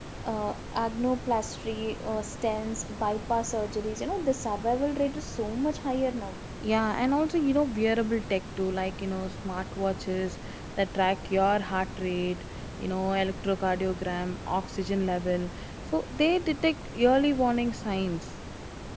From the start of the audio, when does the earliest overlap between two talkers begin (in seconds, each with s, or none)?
none